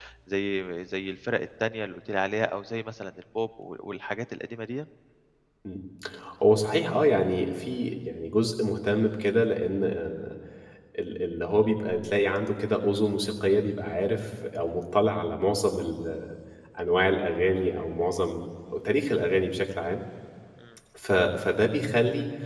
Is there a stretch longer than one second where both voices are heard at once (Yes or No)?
No